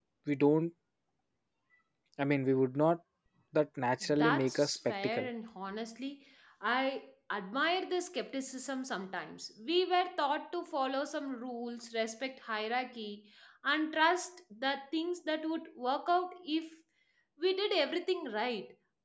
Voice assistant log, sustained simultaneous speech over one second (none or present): present